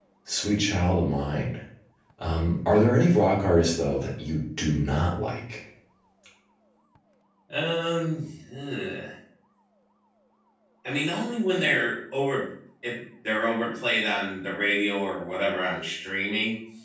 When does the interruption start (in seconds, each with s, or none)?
none